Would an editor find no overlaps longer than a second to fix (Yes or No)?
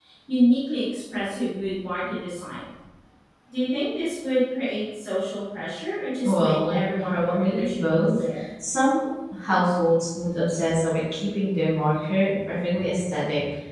No